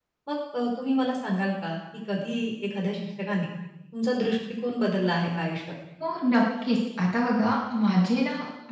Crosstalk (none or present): none